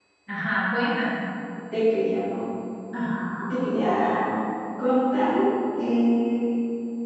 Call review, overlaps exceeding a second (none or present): none